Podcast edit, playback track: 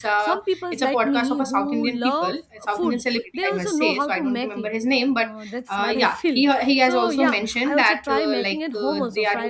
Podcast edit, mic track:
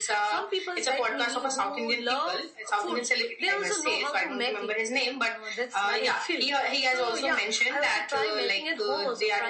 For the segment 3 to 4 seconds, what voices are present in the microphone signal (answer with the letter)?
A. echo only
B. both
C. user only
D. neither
A